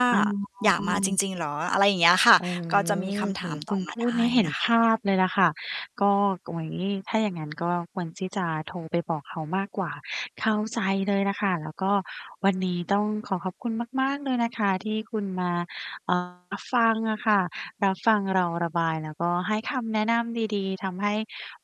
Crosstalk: present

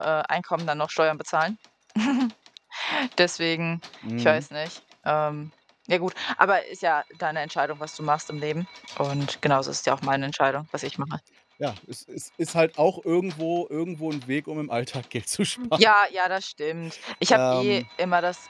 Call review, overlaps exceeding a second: none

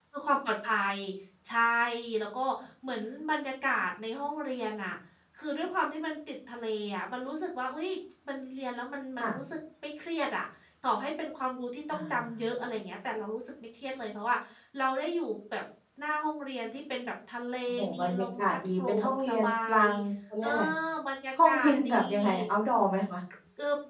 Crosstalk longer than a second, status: present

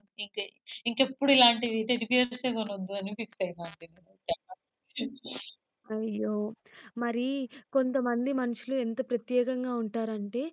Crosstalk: none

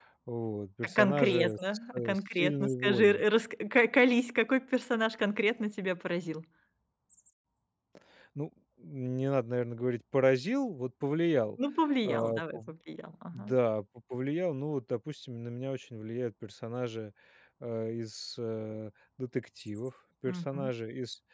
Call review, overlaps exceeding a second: present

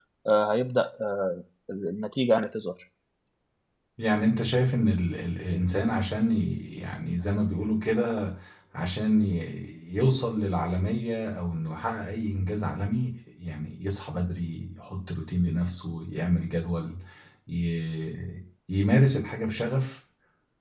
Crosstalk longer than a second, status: none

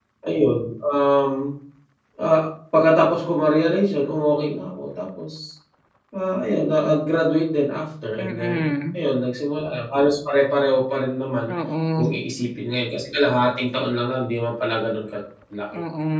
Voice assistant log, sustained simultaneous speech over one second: none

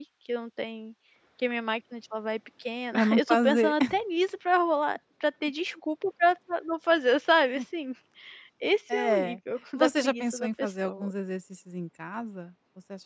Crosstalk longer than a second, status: present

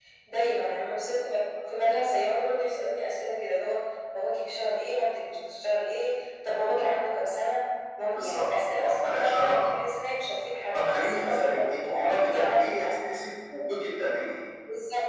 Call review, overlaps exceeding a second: present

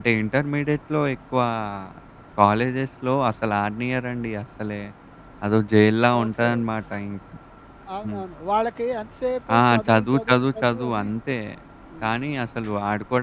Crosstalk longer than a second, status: present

